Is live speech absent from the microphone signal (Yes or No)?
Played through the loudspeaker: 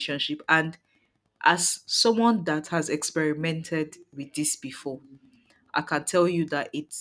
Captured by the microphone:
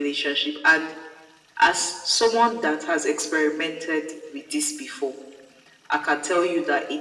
Yes